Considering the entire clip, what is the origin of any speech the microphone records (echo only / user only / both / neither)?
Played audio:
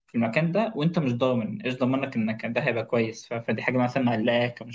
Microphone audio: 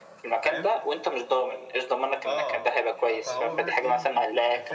both